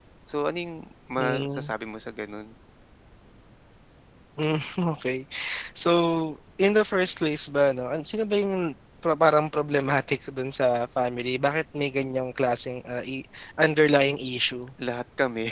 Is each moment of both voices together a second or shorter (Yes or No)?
Yes